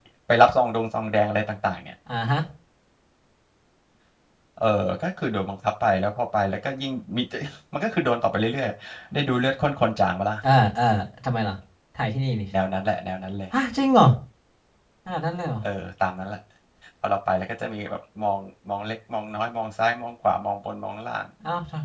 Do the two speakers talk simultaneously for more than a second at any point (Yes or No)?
No